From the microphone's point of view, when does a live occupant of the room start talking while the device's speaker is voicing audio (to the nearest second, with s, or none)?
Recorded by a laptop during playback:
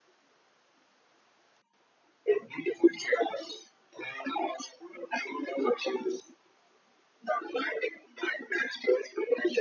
none